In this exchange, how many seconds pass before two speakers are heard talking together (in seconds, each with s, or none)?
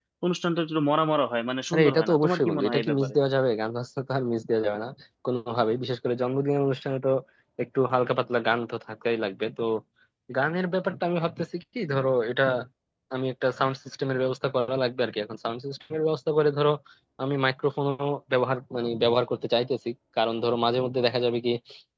1.7 s